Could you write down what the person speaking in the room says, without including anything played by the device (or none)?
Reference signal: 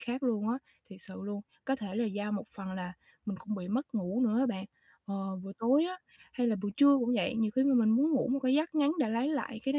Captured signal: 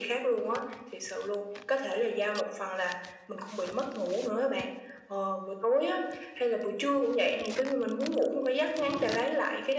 none